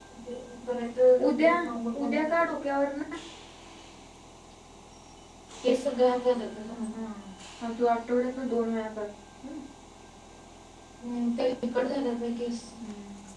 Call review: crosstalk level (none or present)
present